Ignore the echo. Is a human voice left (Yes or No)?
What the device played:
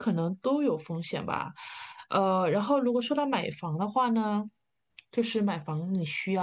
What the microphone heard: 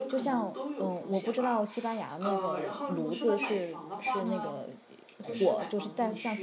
Yes